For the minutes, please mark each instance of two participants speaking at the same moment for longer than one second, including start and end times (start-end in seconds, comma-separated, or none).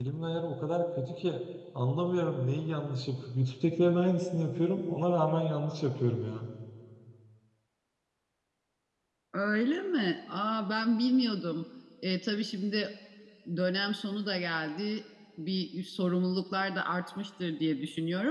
none